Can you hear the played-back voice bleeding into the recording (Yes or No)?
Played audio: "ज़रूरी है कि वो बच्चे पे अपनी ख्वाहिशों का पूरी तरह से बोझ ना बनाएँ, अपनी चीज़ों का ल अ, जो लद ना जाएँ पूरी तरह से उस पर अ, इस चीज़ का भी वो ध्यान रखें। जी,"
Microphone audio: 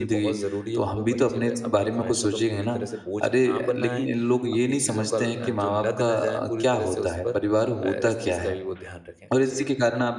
Yes